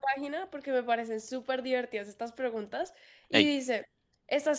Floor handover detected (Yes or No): No